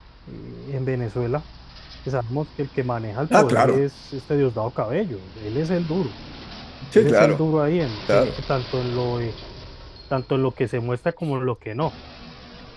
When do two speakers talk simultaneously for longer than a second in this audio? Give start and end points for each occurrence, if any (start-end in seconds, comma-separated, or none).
none